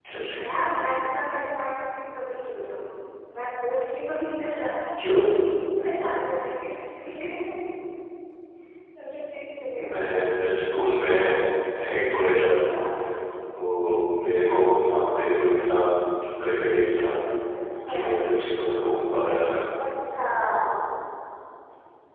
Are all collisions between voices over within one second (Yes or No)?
Yes